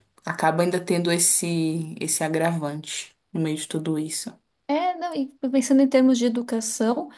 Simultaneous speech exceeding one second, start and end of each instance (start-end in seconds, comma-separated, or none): none